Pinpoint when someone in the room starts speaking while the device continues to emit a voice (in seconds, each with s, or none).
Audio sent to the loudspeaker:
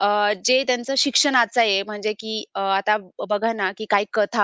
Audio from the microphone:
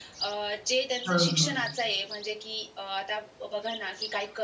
1.1 s